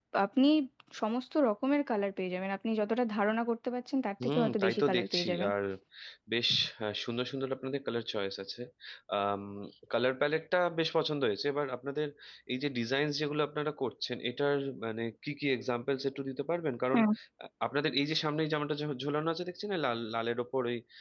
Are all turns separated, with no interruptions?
No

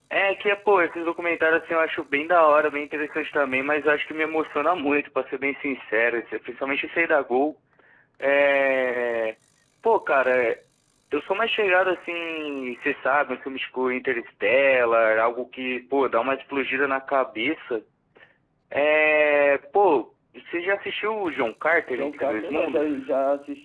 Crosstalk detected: Yes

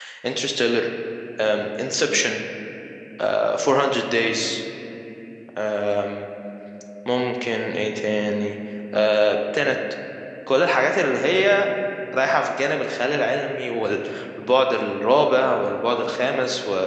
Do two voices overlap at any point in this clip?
No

